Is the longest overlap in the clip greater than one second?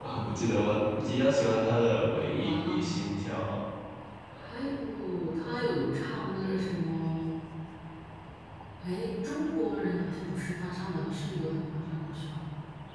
No

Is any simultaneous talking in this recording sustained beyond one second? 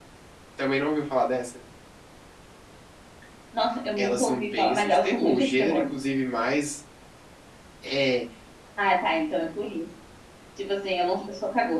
Yes, from 4.0 s

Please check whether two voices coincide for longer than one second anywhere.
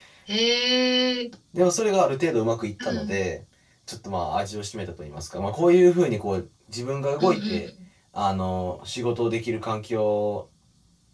No

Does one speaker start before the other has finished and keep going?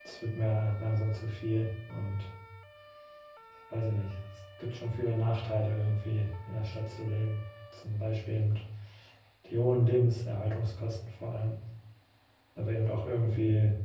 No

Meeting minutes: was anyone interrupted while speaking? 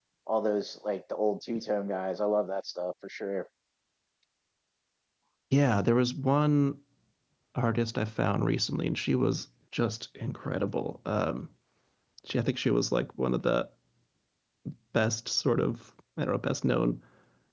No

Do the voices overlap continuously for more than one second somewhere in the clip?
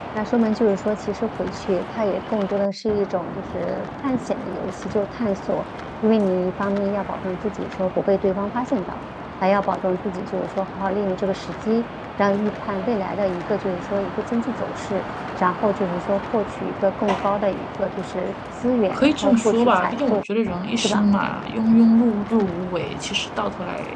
Yes, from 18.9 s

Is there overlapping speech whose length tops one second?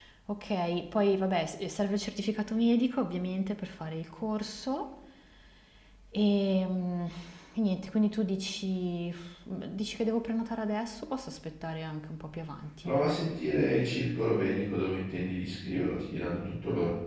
No

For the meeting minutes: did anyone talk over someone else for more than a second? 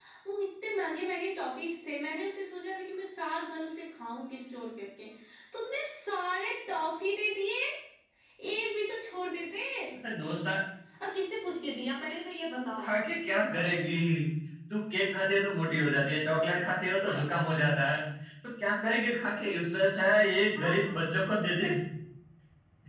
No

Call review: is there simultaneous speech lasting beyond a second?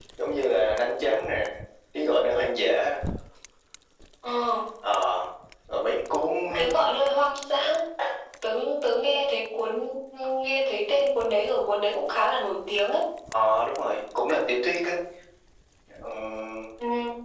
No

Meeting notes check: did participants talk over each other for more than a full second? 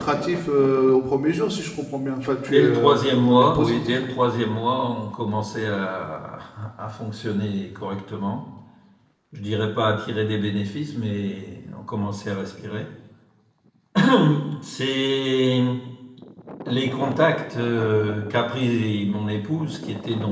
Yes, from 2.5 s

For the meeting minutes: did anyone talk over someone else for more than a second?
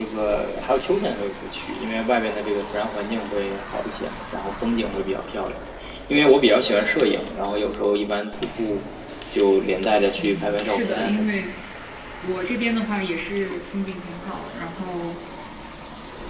Yes, from 10.2 s

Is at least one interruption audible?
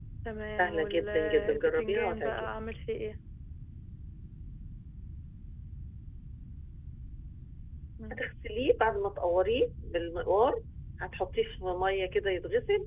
Yes, from 0.6 s

